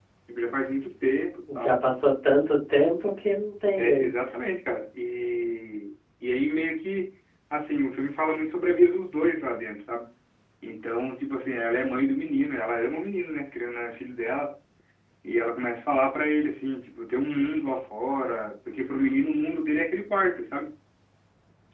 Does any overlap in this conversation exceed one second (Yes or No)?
No